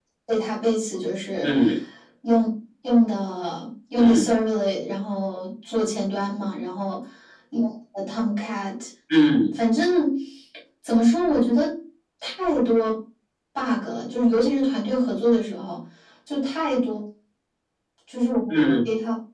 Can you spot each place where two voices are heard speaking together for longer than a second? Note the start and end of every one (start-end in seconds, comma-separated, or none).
none